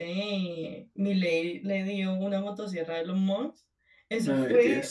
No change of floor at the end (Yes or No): Yes